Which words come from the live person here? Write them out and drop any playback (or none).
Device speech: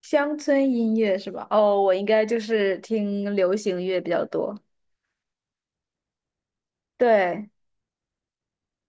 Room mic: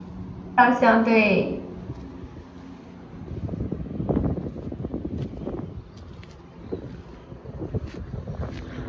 好像对